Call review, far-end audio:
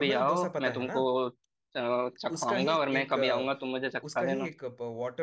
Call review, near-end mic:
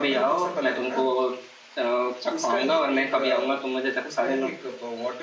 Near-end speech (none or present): none